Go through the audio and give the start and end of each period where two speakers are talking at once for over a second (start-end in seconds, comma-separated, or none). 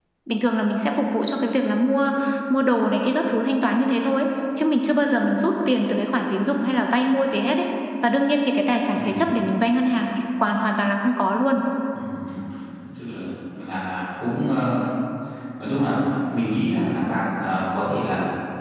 none